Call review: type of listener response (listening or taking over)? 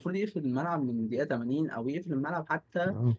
listening